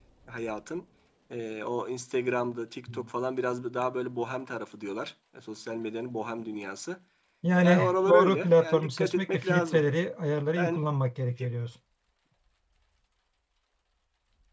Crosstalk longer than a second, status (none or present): present